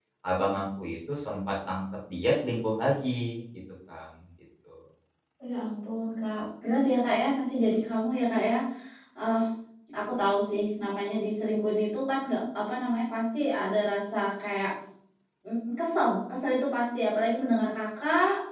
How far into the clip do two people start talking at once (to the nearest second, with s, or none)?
none